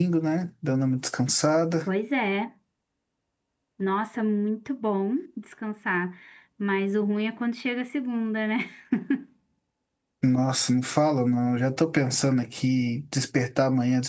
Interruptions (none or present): none